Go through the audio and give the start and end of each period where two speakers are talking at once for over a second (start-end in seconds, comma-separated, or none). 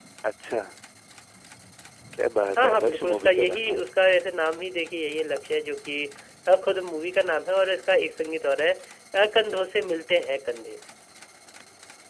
2.6-3.8